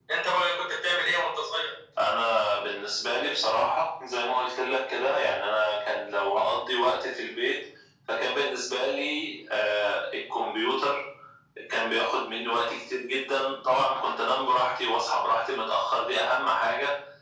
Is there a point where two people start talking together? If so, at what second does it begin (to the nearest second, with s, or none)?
none